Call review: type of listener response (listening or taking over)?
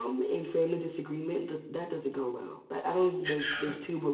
listening